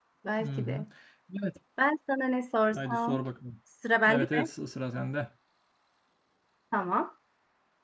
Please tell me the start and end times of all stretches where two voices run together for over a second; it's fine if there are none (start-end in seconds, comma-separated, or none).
none